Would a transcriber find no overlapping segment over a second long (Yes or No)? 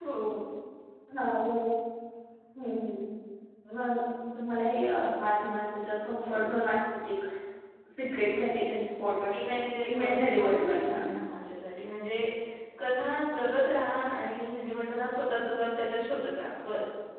No